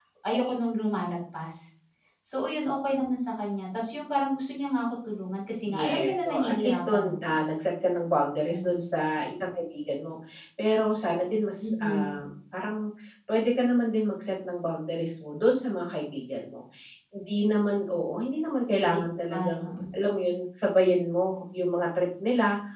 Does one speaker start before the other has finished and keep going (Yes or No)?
Yes